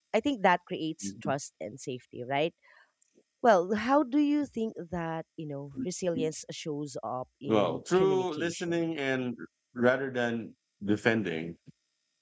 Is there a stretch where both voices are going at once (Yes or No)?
Yes